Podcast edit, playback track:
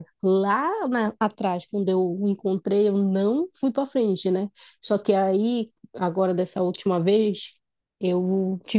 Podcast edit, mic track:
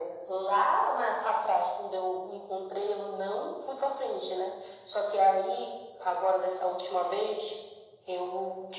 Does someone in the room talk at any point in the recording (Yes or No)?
No